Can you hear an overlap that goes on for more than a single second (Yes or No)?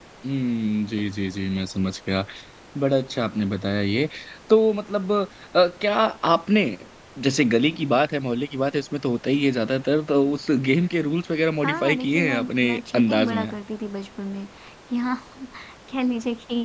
Yes